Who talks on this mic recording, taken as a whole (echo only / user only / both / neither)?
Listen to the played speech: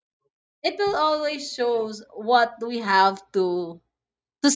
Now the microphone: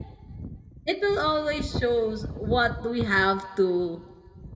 echo only